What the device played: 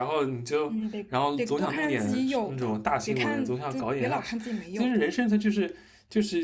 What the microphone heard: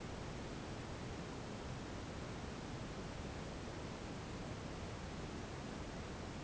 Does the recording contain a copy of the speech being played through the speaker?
No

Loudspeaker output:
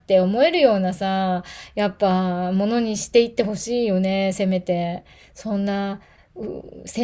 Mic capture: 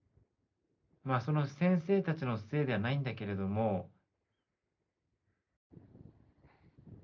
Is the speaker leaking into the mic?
No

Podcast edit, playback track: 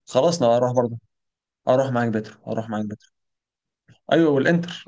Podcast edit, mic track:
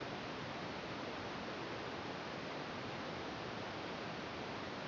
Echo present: No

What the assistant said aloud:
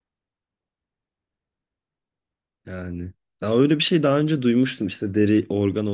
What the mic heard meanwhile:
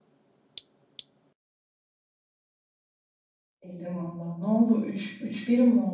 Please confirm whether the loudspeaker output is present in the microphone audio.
No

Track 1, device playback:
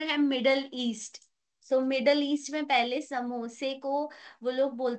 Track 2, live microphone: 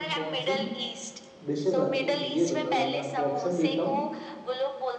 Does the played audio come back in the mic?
Yes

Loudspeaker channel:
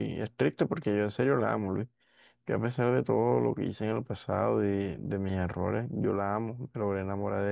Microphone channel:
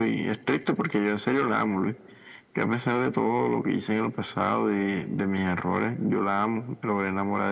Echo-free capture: No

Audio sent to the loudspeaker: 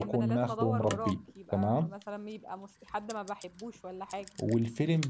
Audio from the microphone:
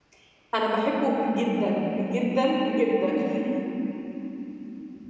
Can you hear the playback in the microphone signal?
No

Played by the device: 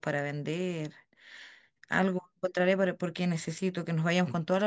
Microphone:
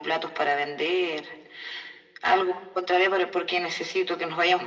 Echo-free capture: No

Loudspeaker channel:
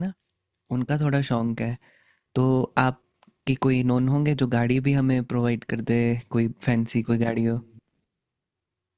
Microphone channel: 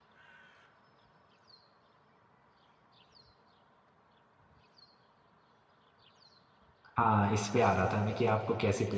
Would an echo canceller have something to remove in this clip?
No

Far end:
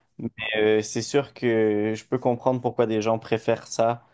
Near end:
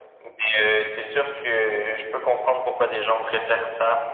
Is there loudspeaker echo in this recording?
Yes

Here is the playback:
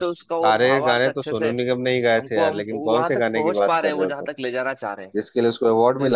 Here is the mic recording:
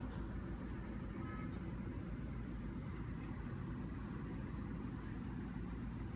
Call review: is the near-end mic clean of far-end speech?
Yes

